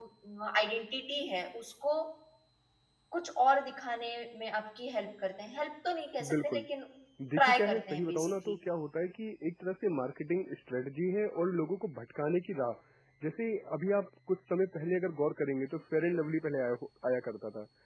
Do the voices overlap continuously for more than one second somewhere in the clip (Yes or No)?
Yes